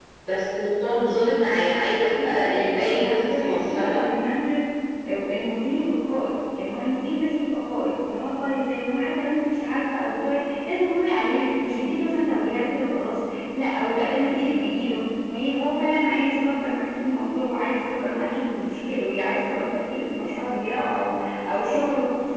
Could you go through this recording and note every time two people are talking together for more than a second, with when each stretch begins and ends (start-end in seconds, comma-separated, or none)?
2.0-4.1